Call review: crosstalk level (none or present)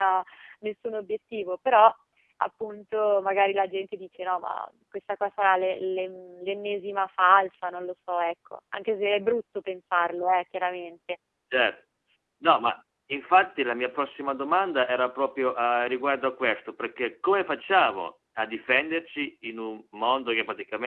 none